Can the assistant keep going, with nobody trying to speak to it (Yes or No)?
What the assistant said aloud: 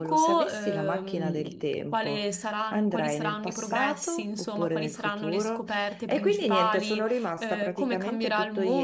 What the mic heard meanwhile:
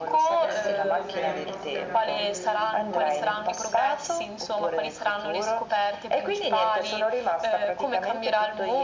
No